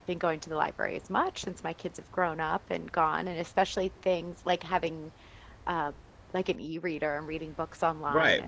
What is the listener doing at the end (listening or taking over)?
taking over